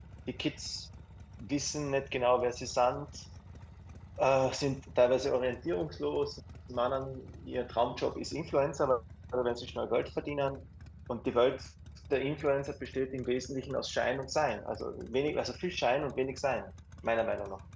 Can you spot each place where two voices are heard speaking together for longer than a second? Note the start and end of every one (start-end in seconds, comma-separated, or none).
none